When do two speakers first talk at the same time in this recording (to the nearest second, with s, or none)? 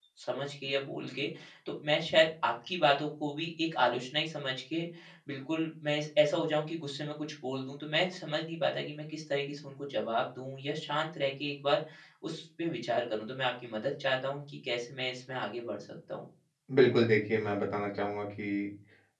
none